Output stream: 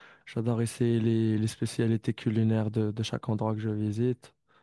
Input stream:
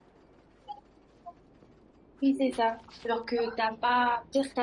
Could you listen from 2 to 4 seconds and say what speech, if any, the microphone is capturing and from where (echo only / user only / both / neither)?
user only